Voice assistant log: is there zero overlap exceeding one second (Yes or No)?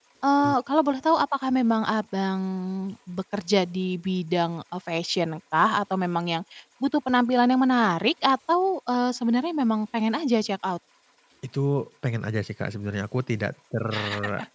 Yes